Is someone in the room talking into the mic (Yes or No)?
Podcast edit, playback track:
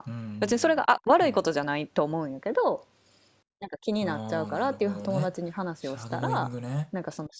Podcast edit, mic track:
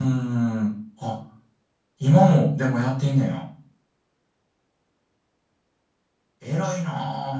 Yes